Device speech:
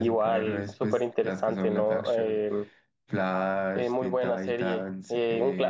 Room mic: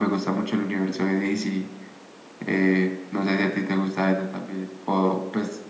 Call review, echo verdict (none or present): none